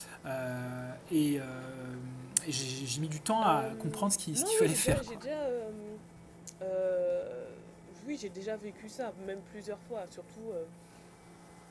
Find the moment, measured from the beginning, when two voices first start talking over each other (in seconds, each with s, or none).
3.4 s